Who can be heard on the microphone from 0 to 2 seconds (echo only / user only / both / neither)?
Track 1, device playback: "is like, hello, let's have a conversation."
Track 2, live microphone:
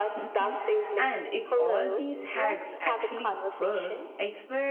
both